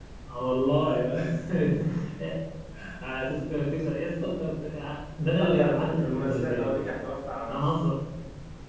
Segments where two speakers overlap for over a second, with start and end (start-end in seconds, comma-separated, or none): 5.4-6.7